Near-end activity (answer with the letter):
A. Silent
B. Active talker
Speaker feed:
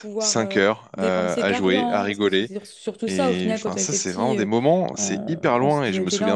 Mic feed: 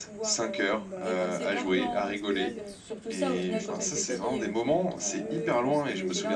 B